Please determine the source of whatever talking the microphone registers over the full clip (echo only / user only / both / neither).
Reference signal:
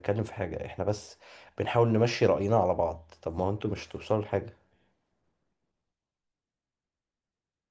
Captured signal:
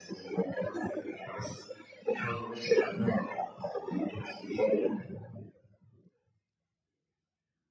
echo only